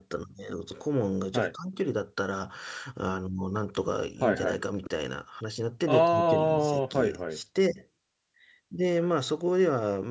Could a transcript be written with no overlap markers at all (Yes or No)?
No